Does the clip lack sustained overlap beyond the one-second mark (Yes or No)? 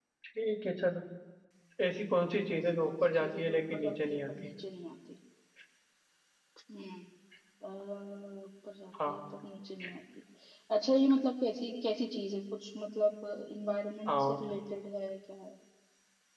No